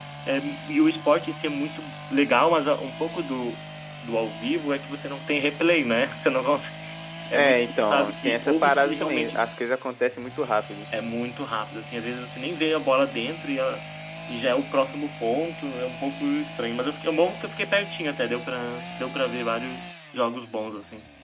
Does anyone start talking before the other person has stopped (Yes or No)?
Yes